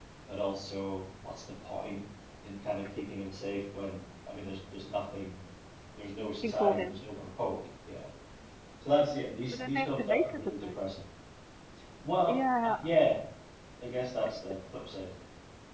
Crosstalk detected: Yes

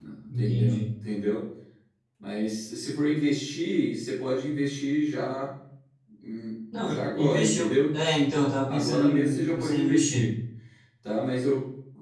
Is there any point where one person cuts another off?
Yes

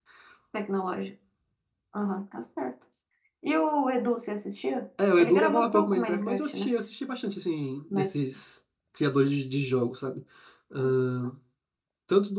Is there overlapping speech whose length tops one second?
Yes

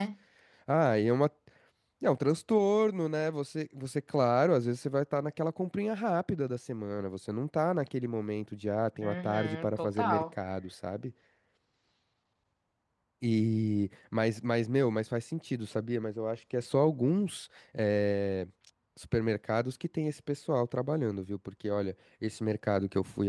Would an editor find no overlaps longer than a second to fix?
No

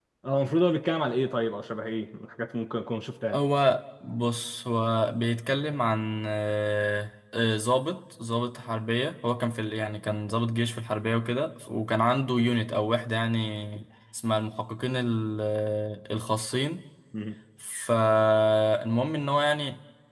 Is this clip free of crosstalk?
Yes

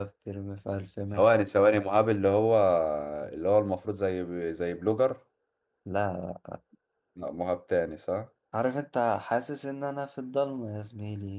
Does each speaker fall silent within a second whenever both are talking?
Yes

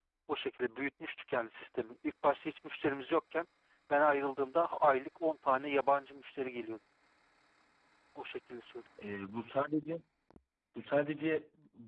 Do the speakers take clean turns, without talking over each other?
Yes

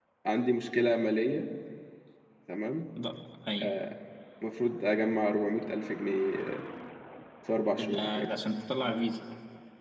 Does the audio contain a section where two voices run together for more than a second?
No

